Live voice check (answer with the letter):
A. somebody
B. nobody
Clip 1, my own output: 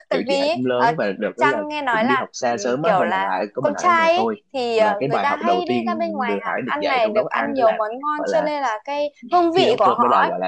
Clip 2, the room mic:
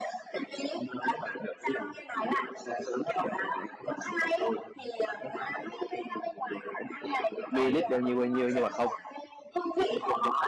A